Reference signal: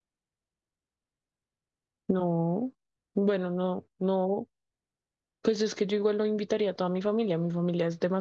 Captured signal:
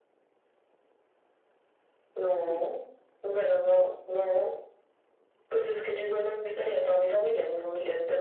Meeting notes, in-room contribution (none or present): present